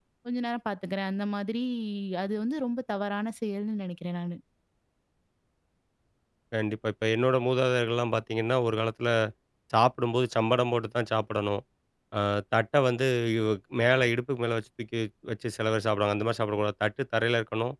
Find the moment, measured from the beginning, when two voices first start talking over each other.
none

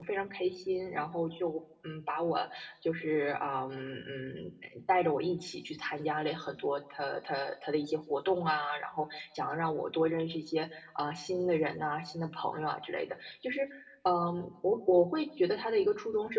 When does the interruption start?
none

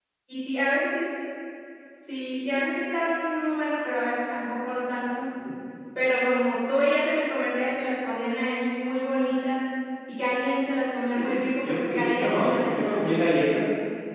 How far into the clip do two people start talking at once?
11.1 s

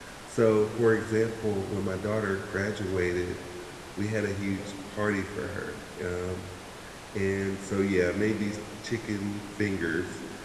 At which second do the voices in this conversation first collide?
none

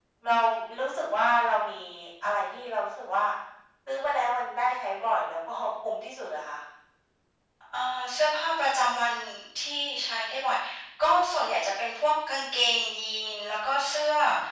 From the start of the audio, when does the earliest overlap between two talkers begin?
none

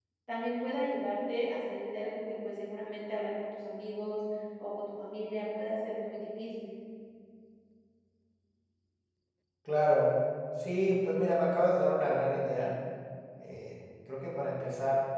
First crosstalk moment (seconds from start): none

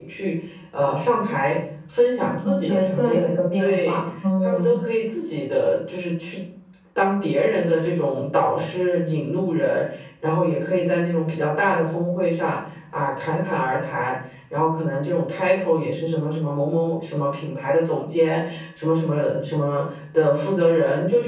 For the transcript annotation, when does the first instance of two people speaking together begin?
2.4 s

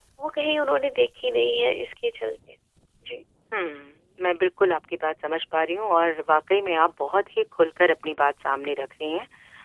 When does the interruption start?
none

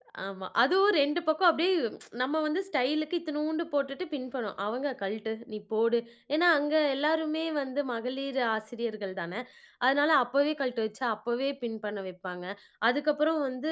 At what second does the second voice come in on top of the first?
none

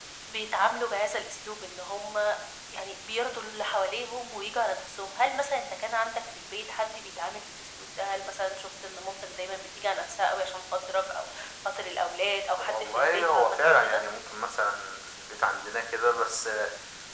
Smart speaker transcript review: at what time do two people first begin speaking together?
12.6 s

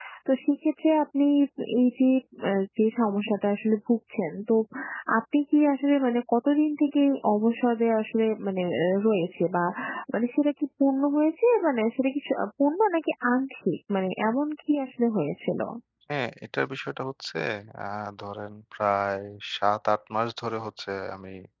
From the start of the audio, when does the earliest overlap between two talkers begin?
none

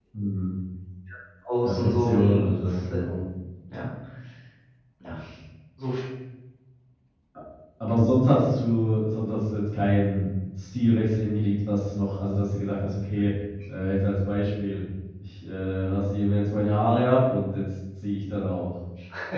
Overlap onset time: 1.6 s

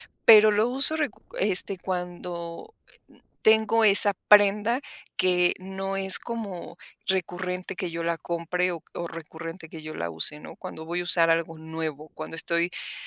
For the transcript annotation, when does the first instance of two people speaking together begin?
none

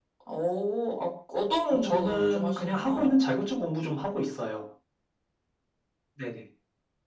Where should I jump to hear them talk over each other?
1.7 s

